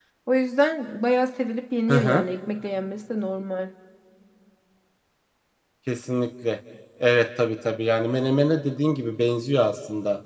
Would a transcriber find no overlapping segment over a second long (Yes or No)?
Yes